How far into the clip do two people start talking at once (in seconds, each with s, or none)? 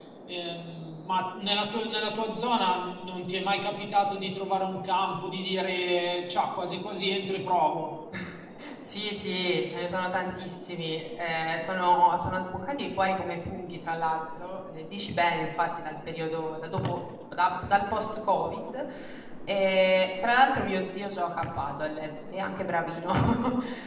none